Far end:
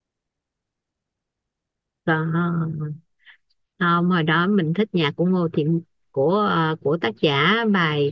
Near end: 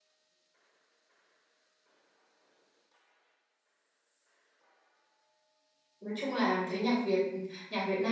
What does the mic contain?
user only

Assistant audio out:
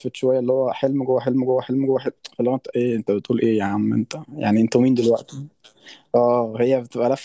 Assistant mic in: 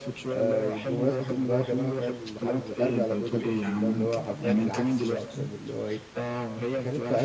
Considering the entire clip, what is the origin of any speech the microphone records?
both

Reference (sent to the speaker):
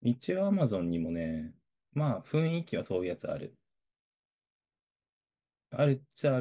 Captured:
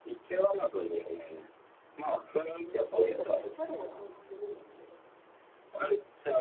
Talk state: both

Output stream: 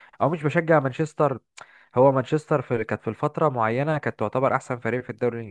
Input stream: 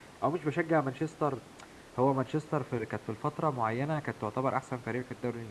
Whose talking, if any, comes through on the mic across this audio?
echo only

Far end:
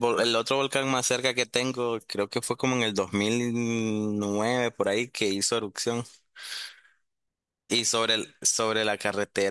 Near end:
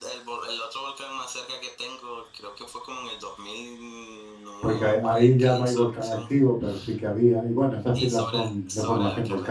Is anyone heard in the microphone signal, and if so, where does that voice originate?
both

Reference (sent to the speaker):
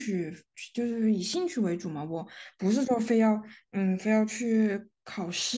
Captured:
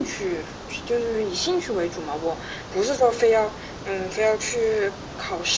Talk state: echo only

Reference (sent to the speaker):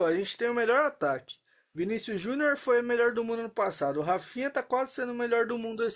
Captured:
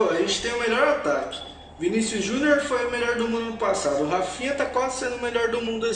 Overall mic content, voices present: echo only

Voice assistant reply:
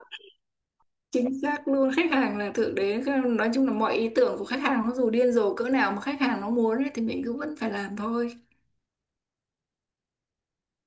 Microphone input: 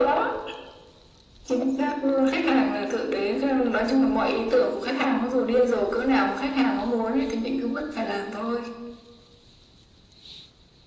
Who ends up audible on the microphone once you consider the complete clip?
echo only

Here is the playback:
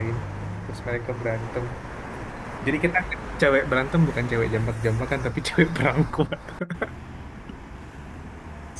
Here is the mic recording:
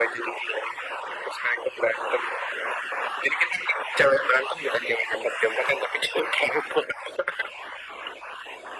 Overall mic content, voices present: echo only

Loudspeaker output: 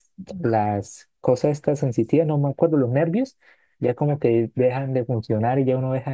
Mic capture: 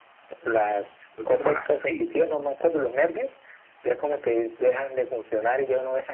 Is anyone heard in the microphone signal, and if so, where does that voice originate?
both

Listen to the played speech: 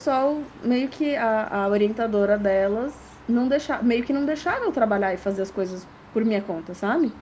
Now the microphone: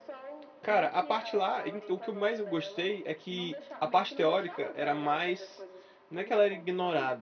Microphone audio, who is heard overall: both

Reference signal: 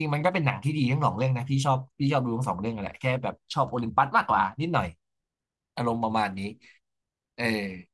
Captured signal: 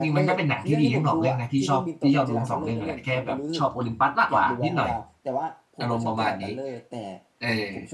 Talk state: both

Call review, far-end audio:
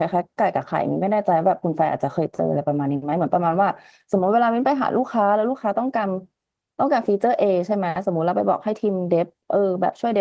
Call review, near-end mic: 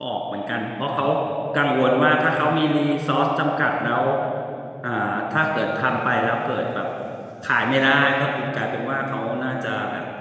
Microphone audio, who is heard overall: user only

